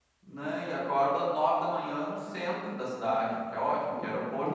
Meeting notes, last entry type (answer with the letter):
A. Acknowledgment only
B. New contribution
A